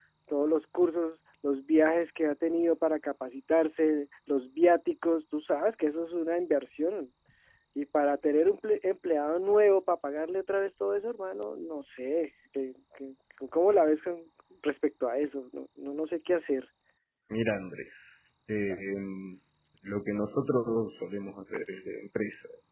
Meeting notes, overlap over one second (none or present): none